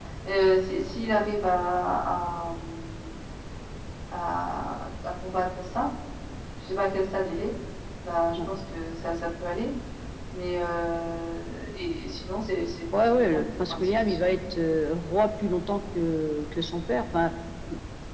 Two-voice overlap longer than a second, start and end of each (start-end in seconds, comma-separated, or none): 13.0-14.3